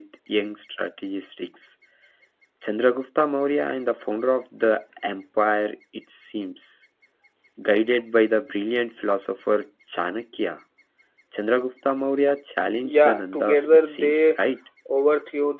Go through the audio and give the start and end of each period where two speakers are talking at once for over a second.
13.0-14.4

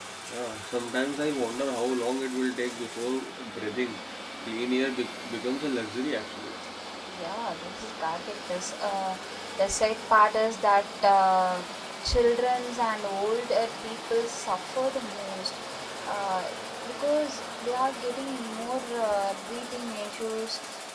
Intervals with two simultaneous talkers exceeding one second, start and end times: none

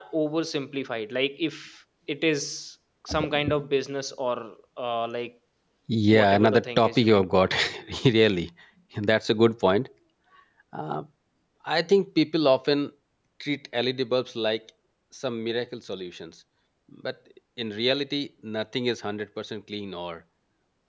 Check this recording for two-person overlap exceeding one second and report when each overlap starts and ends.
6.1-7.5

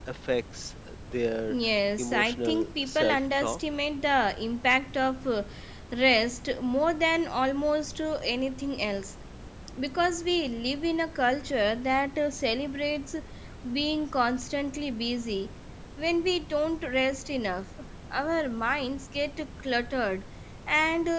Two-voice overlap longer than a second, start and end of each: 2.0-3.6

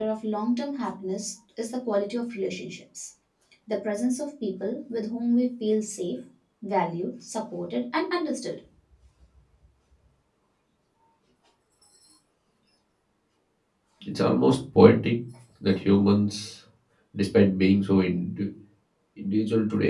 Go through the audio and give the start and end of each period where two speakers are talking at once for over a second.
none

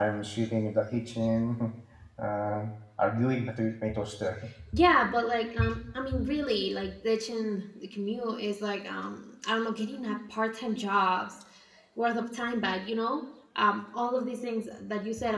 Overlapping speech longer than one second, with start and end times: none

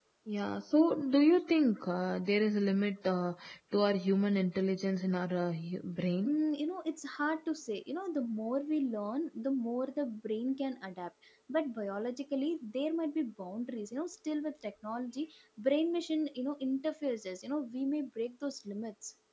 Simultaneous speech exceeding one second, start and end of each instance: none

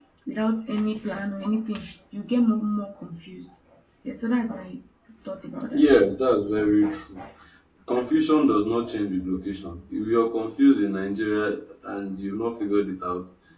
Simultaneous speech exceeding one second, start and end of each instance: none

